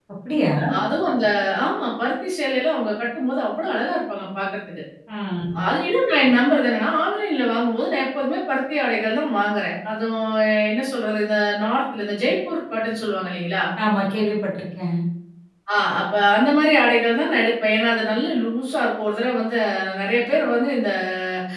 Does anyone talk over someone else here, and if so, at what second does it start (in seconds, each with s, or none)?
none